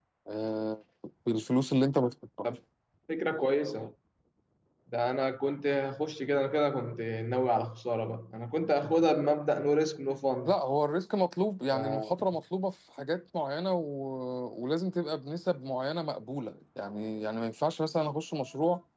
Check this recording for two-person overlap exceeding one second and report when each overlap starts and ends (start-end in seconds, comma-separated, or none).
none